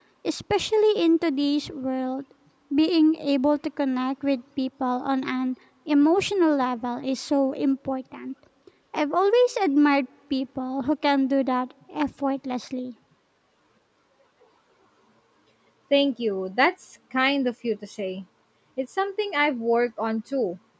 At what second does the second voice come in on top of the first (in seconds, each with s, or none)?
none